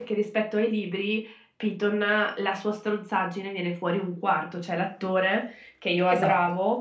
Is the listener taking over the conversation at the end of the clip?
No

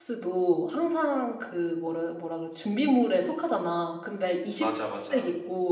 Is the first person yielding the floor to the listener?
No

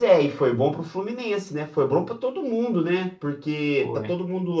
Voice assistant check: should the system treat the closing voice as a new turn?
No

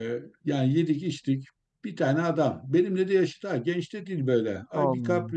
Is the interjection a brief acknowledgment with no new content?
Yes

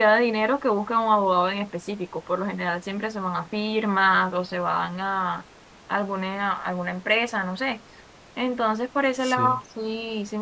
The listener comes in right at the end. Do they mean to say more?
No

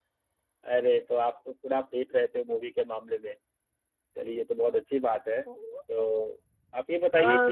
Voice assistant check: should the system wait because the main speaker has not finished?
No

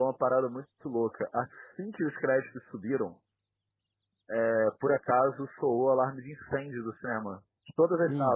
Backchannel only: Yes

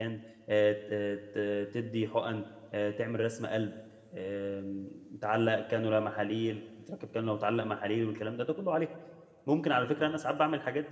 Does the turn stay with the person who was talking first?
Yes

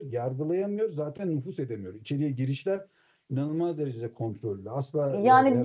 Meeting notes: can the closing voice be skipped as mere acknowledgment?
No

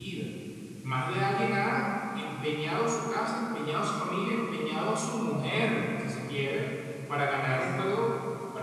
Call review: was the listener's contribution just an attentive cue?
Yes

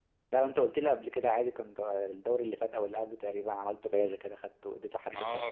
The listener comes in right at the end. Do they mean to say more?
Yes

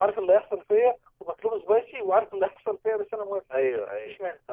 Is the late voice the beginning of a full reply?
Yes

